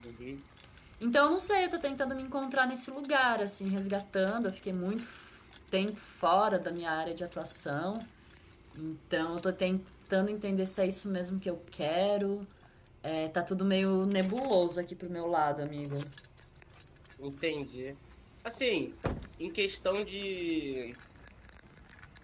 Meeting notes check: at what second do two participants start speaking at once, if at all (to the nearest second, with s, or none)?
none